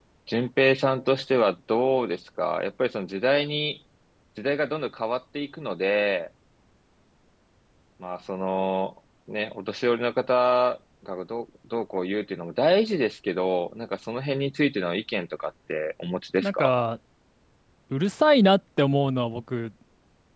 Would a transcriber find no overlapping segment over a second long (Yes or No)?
Yes